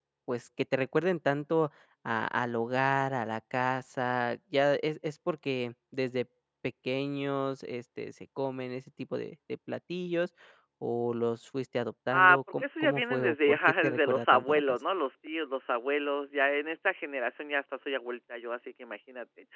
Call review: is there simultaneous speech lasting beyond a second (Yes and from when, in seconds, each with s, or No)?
Yes, from 12.1 s